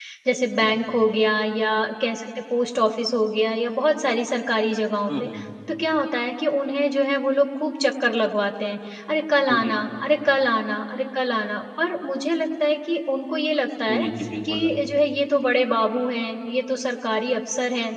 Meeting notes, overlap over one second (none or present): none